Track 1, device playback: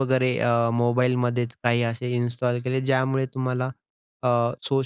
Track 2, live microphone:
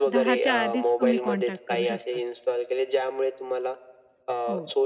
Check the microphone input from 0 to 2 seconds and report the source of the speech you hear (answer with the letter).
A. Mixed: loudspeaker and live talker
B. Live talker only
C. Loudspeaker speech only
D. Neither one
A